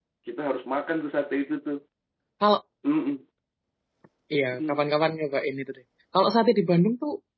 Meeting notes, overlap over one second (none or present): none